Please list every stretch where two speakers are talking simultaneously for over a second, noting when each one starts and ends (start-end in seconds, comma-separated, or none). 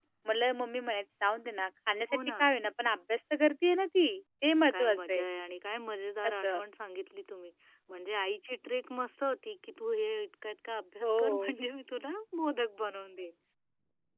none